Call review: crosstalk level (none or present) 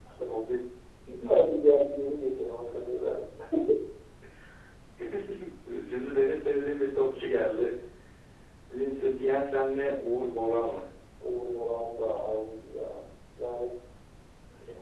none